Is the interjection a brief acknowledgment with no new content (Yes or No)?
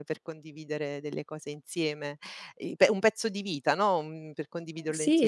No